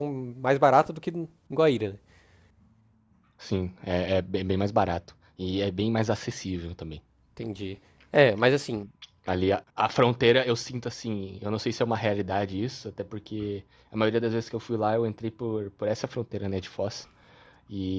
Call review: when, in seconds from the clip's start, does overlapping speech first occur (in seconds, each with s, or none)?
none